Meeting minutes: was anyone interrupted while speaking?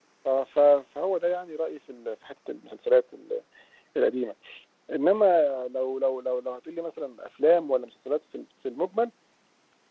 No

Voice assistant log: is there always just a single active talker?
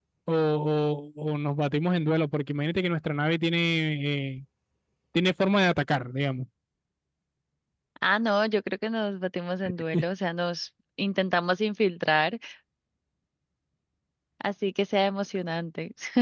Yes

